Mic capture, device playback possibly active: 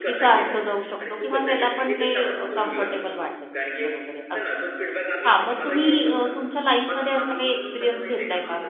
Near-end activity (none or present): present